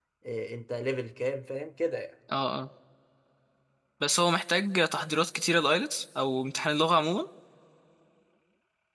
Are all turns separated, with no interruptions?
Yes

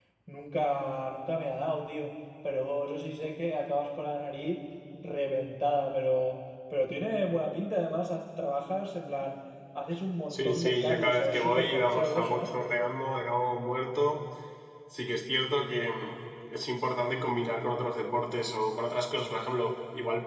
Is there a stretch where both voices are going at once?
Yes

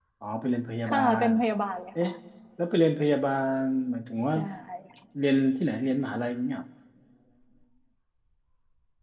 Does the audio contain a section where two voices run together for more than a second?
No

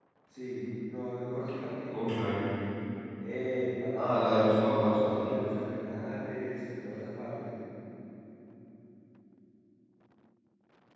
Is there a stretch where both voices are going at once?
Yes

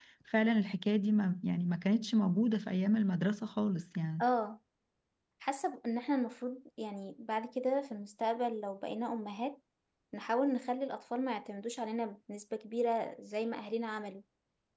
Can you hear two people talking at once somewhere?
No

